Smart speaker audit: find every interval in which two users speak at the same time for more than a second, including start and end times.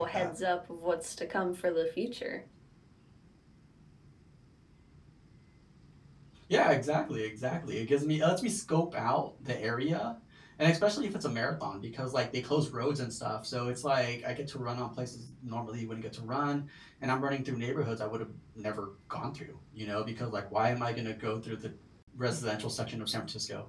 none

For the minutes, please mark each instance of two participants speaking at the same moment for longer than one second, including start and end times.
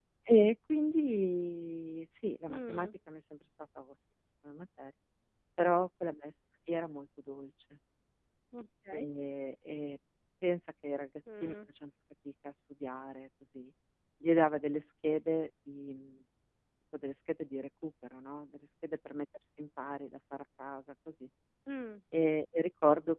none

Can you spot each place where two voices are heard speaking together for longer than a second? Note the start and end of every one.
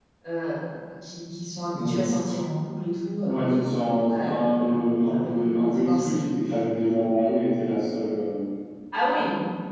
4.1-6.2

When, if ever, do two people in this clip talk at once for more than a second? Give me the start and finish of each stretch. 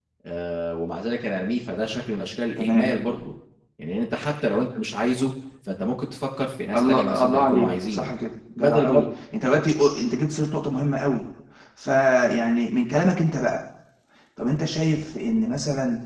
6.7-8.1

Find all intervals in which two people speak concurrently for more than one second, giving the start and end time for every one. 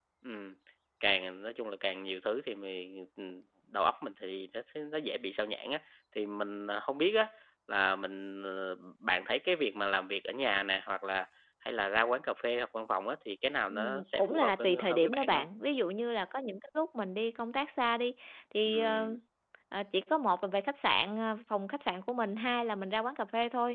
13.7-15.4

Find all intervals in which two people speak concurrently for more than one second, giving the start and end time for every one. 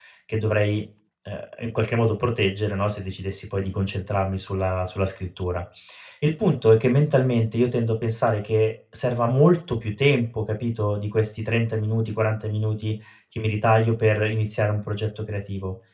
none

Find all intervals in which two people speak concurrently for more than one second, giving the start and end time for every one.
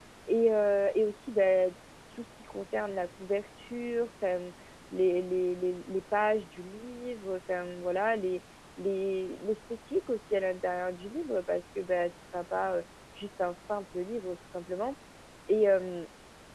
none

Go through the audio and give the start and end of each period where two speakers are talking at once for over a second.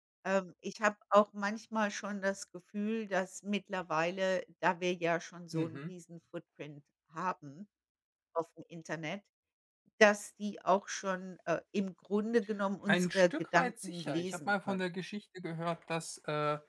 12.9-14.8

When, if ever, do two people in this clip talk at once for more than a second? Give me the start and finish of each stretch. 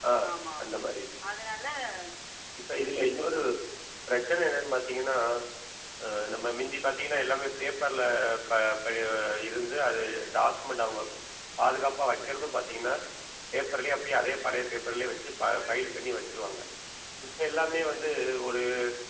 none

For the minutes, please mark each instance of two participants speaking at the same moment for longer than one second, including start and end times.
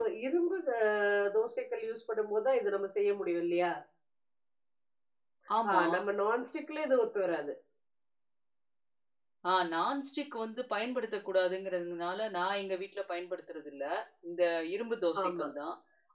none

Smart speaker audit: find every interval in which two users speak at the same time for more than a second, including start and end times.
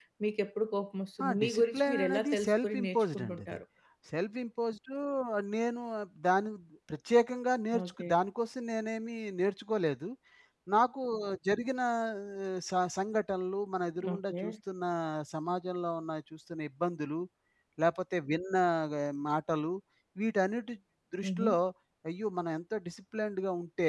1.2-3.6

